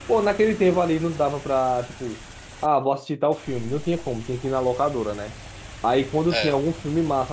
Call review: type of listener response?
listening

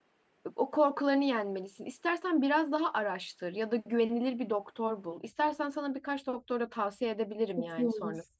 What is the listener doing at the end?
taking over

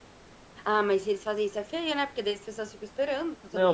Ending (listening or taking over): taking over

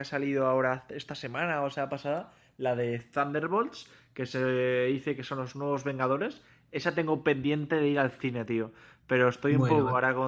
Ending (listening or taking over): listening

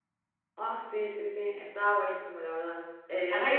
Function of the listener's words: listening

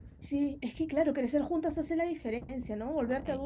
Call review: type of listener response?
listening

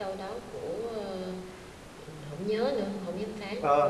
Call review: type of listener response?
taking over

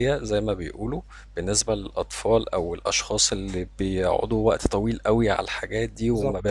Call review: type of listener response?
listening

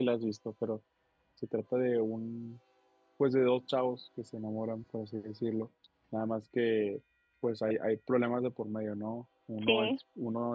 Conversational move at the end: listening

